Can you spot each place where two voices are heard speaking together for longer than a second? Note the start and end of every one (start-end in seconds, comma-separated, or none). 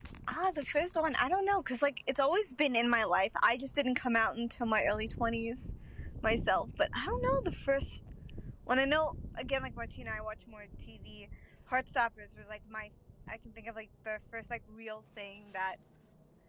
none